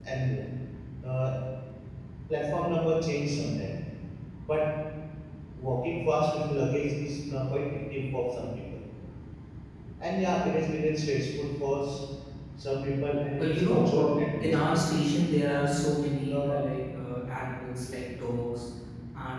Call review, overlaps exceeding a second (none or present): present